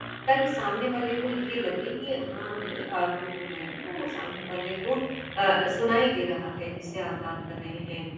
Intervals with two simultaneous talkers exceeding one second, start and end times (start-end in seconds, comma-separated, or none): none